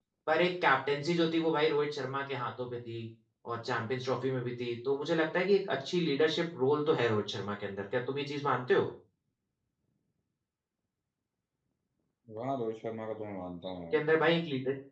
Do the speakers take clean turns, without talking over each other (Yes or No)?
Yes